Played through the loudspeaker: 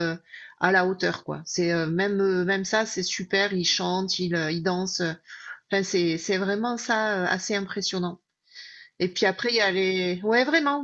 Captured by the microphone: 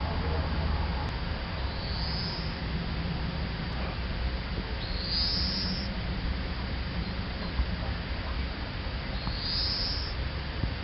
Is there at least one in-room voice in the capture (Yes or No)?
No